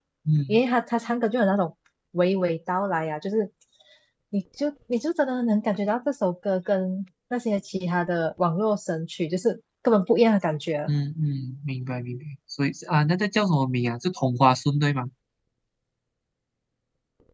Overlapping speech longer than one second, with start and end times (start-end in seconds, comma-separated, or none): none